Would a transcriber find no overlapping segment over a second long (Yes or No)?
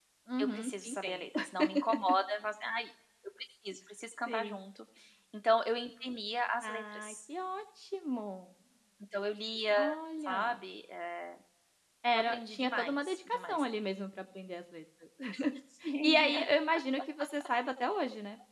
No